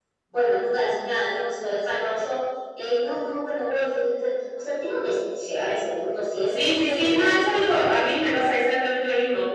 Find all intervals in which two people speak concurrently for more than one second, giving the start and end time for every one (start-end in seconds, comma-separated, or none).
6.5-8.1